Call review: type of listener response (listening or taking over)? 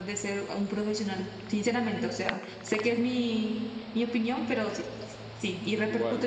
taking over